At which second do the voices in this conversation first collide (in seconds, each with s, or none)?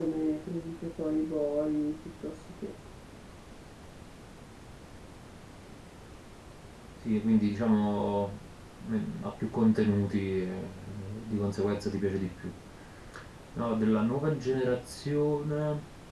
none